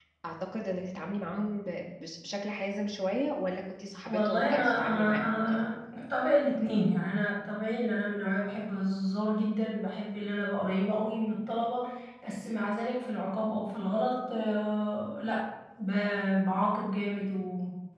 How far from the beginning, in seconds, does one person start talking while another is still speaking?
4.0 s

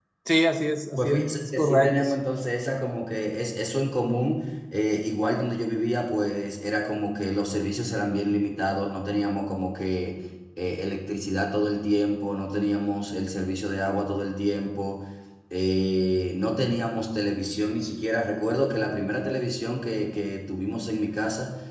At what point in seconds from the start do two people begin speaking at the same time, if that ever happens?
1.0 s

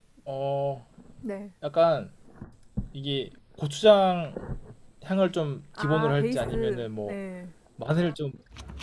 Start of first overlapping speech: 5.8 s

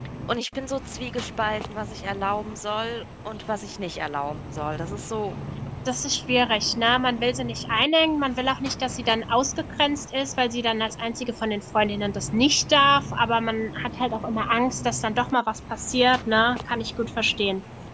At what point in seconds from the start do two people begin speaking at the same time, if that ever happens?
none

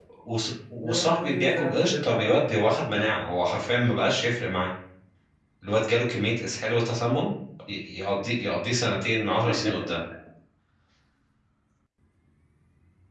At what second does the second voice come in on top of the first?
0.8 s

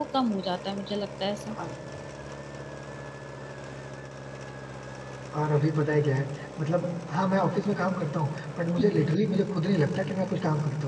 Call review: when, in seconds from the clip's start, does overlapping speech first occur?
none

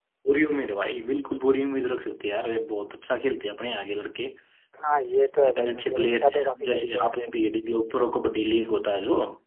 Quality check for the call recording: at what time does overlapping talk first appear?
5.5 s

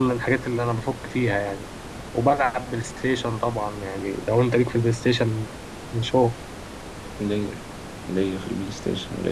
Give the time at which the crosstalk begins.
none

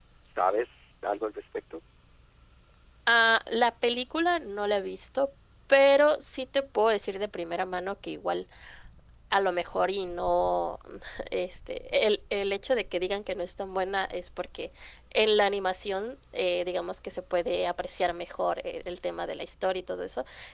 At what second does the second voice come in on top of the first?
none

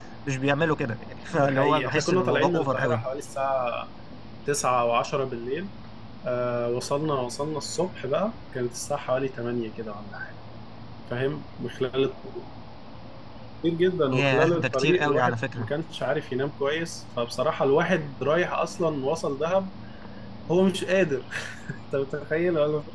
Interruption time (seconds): 1.3 s

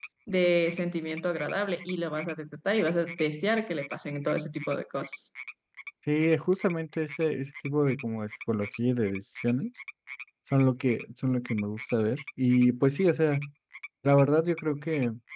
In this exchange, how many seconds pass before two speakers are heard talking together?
none

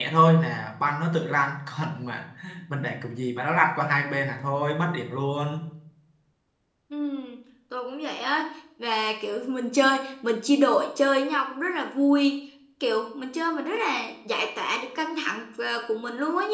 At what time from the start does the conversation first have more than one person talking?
none

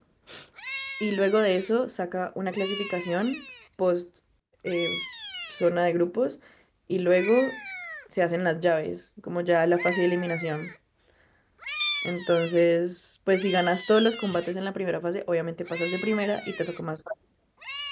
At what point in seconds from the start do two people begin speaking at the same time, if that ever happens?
none

